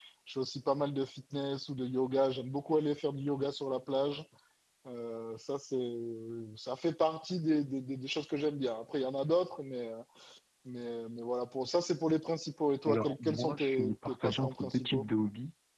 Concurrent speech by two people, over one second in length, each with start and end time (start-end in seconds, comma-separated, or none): 12.8-15.0